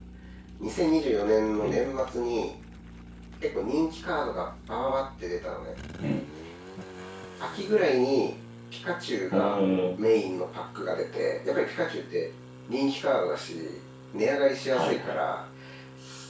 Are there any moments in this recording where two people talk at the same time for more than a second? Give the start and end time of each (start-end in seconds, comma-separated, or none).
none